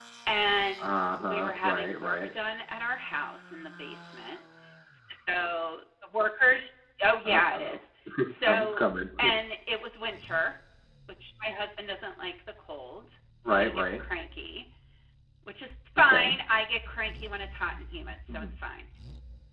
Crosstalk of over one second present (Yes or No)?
Yes